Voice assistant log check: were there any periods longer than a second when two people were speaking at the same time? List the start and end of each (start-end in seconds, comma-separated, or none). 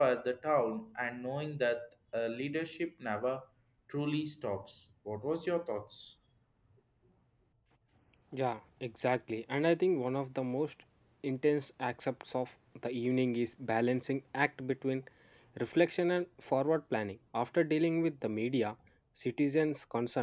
none